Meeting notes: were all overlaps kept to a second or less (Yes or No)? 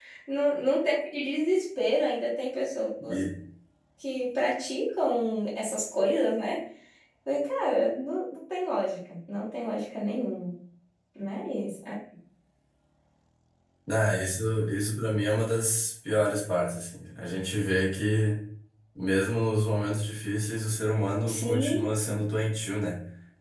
Yes